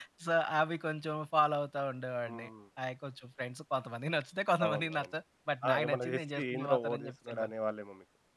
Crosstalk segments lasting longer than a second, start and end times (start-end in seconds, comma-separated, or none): 5.7-7.5